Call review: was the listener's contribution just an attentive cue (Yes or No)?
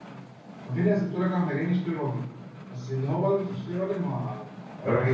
Yes